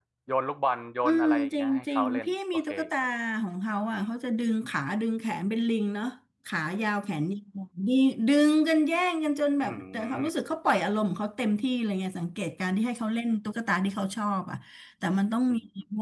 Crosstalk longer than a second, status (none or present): present